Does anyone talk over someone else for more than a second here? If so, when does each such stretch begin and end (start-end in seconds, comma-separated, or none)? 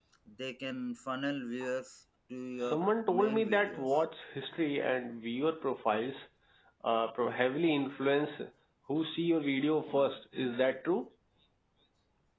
2.6-4.0